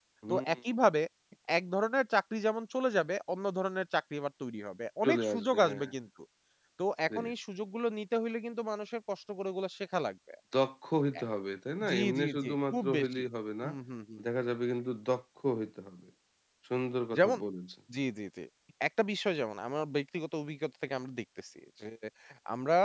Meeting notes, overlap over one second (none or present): present